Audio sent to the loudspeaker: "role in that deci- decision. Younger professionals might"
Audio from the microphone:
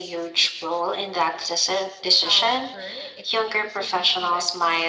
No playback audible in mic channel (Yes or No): No